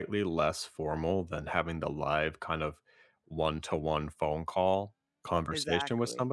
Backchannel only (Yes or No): Yes